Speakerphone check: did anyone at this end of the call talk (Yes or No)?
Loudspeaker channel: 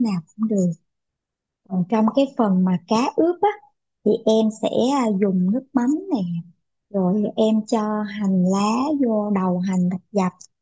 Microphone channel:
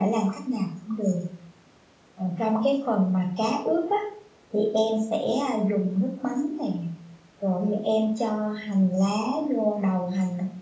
No